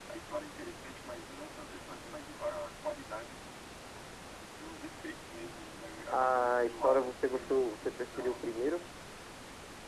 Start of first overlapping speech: 6.1 s

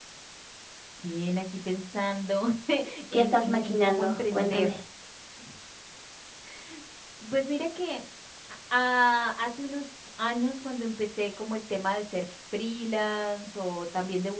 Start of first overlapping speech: 3.1 s

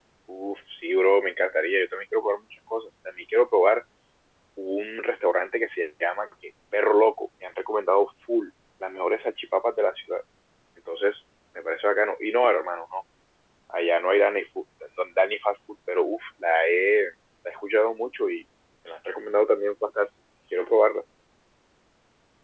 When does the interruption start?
none

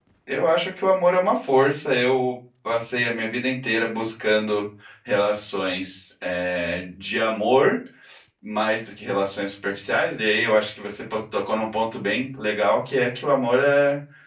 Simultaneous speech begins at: none

